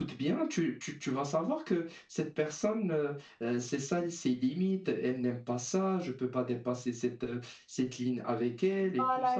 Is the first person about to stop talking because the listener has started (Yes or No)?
Yes